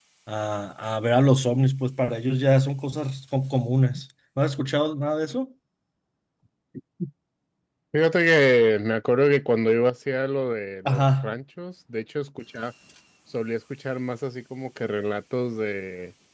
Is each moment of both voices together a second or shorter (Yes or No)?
Yes